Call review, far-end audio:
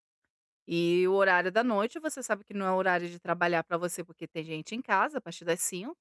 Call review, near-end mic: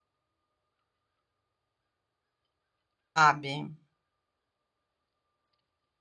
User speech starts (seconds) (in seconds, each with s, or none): 3.0 s